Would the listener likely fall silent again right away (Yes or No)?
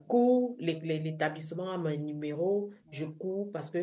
Yes